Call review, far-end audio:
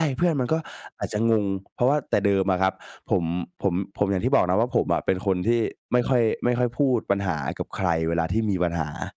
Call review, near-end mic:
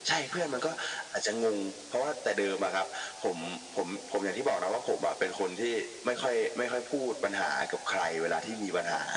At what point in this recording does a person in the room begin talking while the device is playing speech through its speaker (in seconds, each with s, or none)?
none